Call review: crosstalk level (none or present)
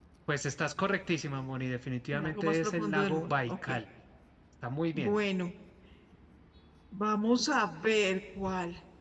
present